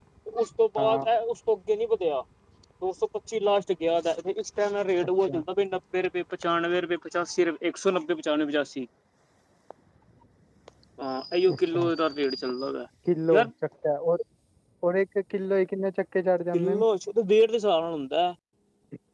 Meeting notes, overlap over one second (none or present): none